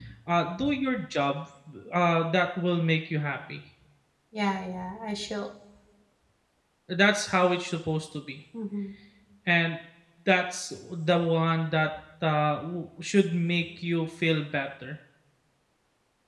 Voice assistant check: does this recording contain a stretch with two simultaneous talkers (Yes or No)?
No